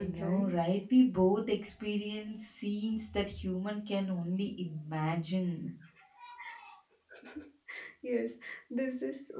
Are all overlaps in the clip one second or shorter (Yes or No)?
Yes